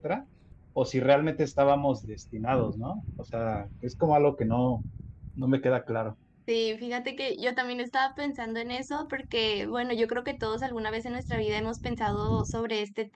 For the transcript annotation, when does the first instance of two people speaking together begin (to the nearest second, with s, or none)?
none